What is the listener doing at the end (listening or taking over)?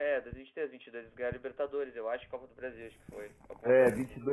taking over